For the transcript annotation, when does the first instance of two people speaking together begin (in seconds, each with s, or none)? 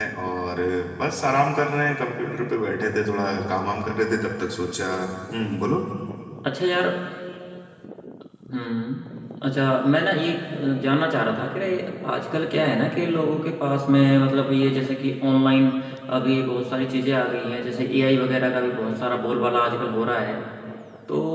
none